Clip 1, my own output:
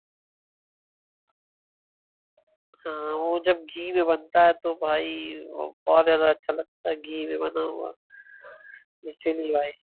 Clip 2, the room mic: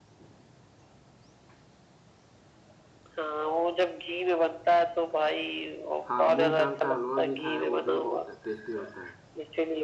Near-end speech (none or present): present